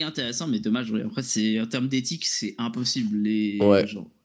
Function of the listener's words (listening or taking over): taking over